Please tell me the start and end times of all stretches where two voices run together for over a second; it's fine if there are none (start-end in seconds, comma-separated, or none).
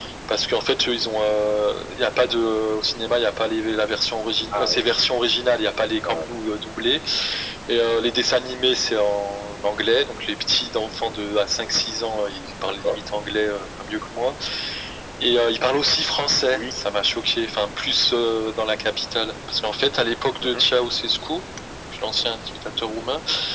none